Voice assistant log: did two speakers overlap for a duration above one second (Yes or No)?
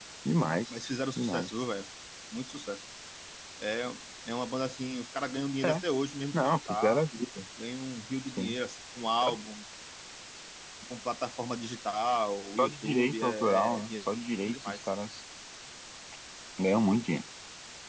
Yes